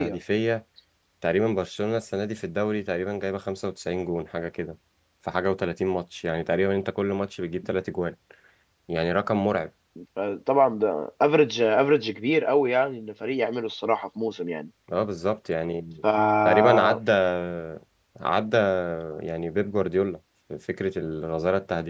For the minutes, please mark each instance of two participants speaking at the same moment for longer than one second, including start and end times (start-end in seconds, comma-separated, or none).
none